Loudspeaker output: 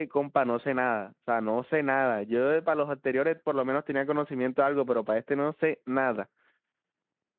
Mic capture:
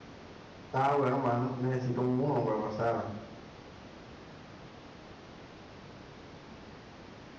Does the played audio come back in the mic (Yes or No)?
No